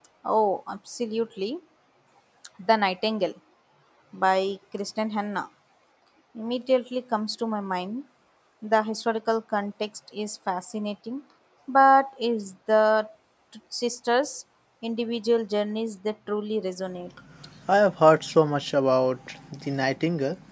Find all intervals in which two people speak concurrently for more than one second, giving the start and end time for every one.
none

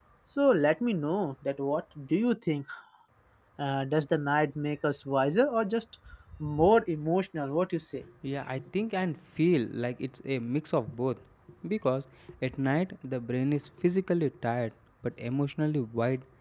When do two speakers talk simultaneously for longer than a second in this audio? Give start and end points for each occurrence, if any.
none

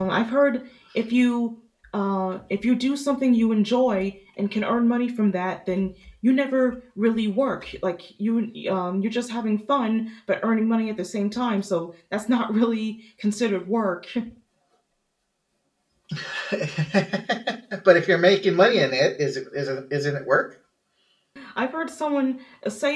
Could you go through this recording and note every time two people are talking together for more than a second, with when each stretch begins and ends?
none

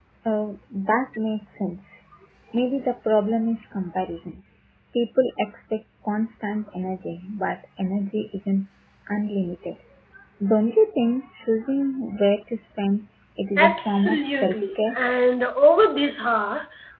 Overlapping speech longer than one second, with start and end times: 13.6-14.9

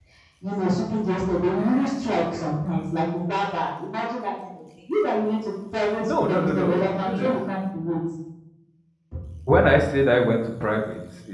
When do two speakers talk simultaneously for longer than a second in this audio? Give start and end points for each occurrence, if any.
6.0-7.4

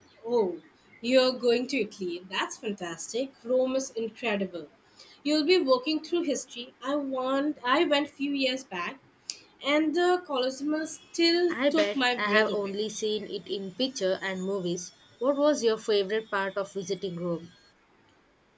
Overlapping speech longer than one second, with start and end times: 11.5-12.7

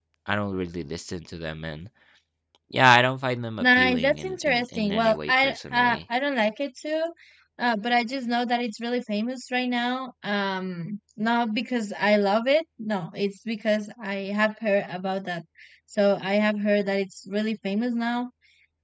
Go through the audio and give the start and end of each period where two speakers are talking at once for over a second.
3.6-6.0

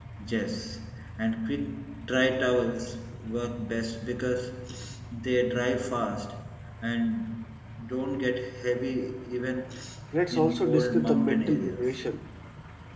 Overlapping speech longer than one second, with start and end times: 10.3-12.0

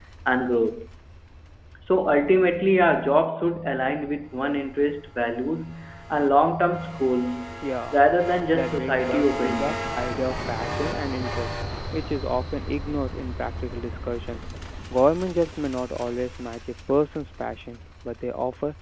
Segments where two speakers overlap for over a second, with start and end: 8.5-9.8

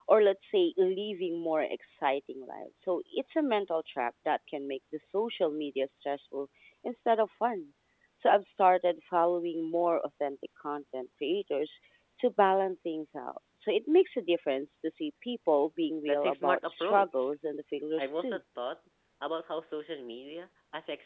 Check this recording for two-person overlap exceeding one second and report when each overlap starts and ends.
16.0-17.3

